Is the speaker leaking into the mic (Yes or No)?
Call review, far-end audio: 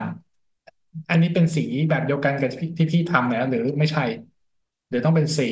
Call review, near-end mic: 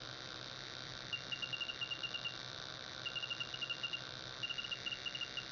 No